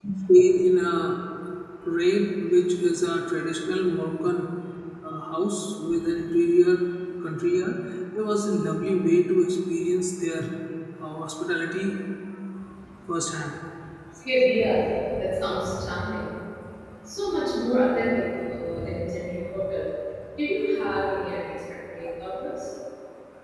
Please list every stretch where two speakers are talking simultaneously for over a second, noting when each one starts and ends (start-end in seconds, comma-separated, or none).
none